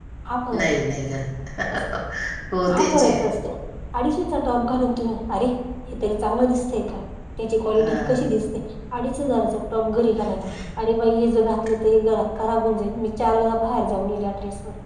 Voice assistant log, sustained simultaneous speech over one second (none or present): none